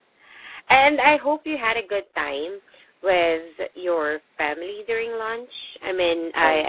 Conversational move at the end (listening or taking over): listening